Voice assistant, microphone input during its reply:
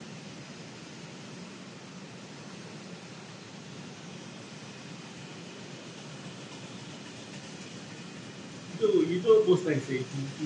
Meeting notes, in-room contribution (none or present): present